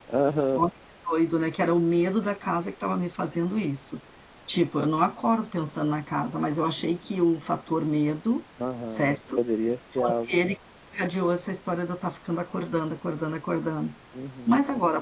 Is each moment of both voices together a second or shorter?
Yes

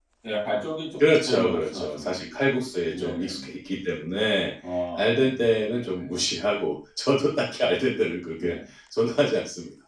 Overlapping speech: Yes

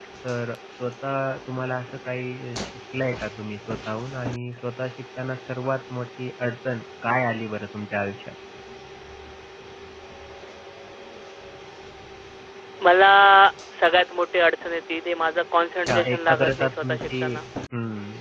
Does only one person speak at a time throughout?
No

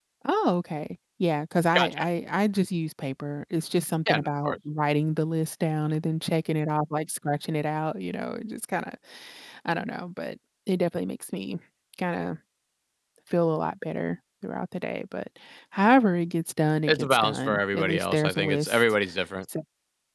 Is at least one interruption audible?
Yes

